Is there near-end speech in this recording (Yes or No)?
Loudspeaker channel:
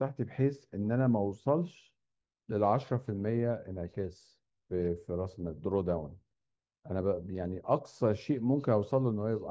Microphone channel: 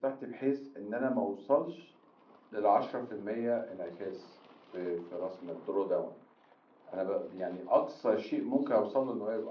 No